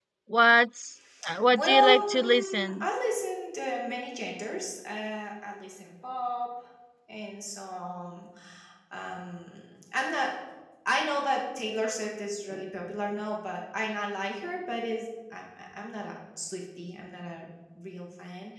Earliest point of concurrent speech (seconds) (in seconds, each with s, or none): 1.5 s